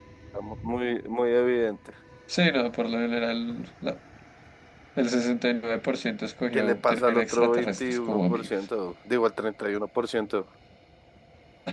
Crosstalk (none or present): present